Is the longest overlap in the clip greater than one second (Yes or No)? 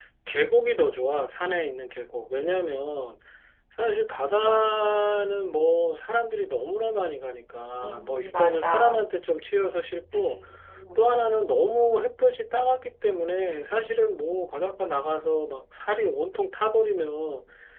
Yes